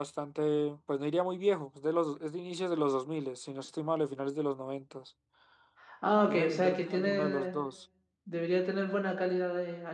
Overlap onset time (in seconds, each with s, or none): 6.3 s